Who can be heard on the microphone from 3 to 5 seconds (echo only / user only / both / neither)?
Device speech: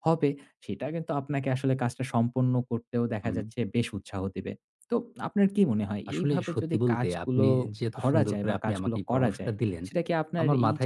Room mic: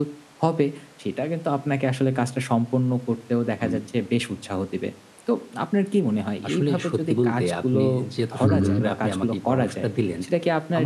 echo only